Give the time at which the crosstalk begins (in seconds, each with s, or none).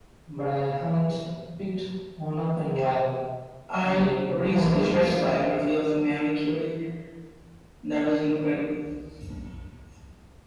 3.8 s